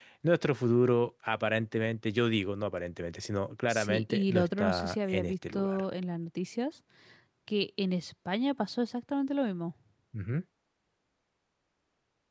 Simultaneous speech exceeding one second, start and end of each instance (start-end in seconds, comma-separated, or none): 3.7-5.8